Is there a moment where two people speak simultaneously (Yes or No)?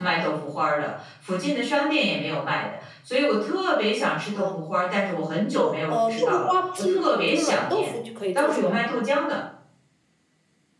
Yes